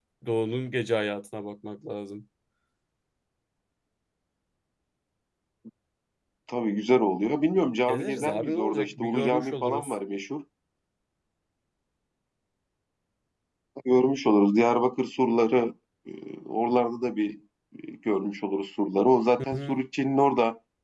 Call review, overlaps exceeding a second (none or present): present